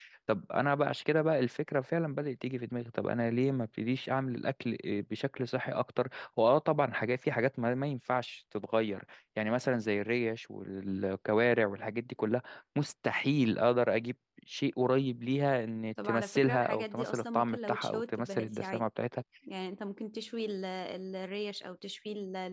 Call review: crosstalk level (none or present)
present